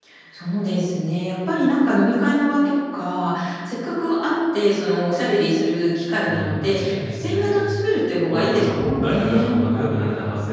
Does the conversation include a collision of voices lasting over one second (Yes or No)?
Yes